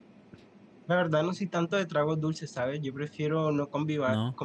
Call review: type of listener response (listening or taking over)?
listening